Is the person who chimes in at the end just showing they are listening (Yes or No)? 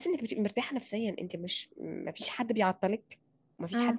No